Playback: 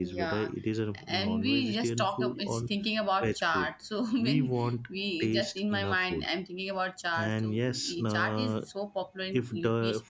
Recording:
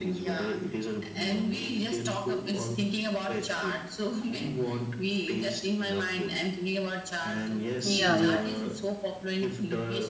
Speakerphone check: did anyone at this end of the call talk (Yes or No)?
Yes